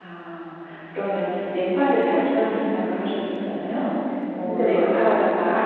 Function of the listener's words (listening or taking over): listening